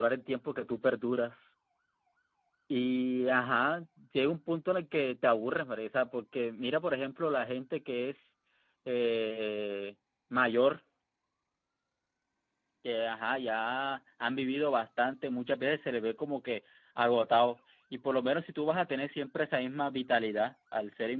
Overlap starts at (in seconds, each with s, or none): none